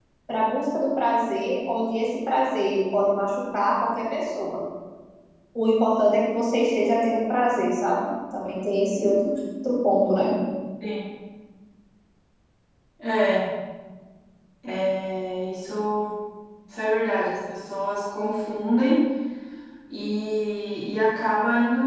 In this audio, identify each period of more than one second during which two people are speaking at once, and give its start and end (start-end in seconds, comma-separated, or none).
none